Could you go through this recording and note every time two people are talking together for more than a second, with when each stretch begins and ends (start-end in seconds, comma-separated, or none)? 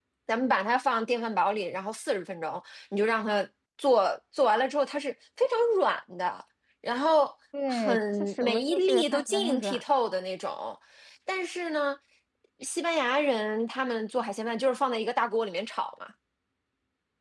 7.7-9.8